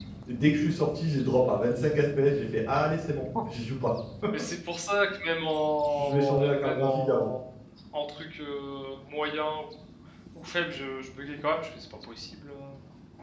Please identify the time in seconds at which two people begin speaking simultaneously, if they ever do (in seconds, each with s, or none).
6.0 s